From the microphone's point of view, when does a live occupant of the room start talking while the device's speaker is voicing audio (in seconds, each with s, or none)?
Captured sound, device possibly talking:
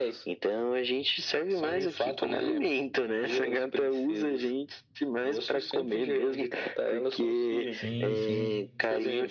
7.7 s